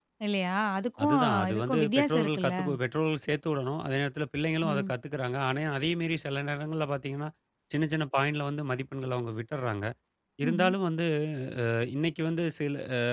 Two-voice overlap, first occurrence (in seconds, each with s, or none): 1.0 s